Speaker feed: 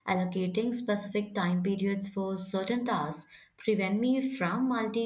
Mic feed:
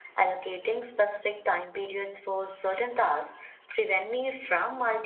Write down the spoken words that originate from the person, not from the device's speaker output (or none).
none